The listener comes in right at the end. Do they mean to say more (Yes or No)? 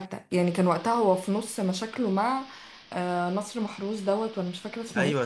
Yes